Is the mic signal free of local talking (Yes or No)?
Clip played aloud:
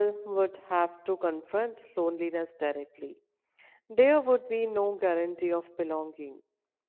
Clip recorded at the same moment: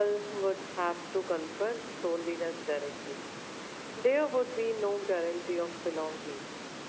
Yes